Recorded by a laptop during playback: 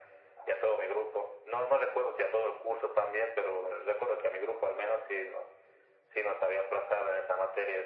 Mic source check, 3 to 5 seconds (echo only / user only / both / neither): echo only